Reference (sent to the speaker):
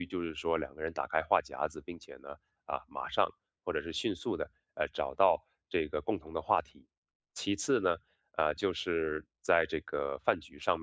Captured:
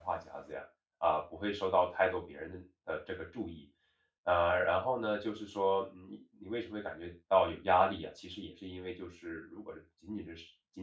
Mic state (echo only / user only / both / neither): user only